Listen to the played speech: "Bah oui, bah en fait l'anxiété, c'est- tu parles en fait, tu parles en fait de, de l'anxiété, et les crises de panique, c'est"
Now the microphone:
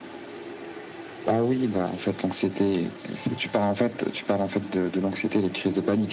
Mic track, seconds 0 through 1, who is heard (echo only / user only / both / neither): neither